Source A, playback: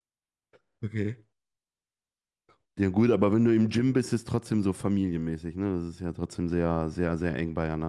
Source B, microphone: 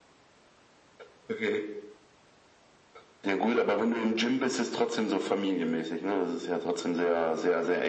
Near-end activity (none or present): none